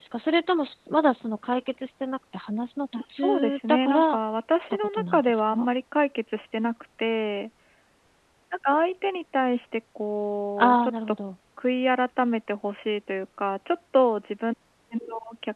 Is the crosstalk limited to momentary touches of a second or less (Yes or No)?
No